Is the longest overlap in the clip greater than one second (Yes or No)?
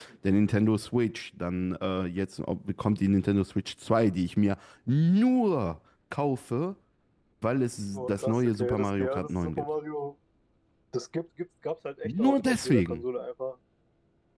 Yes